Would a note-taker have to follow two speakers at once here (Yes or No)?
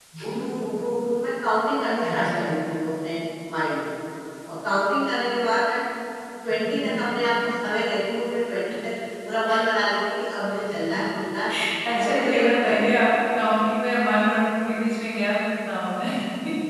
Yes